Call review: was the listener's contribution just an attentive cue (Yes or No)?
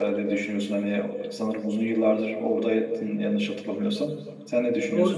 No